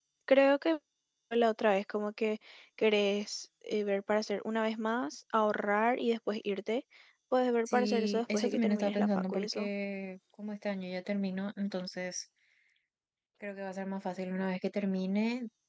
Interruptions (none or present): present